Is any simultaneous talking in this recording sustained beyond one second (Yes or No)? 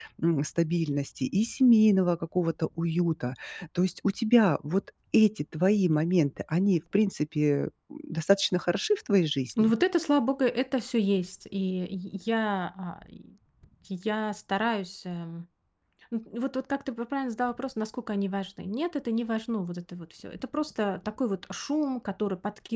No